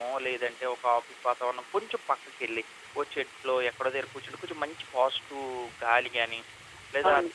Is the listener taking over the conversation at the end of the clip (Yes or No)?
No